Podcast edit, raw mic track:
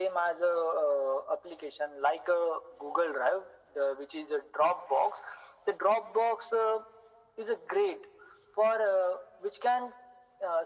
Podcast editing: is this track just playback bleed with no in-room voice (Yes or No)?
Yes